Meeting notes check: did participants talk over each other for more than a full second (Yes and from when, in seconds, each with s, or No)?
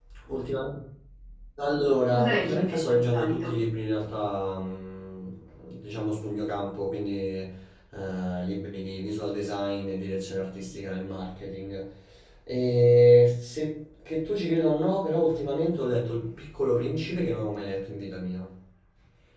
Yes, from 2.1 s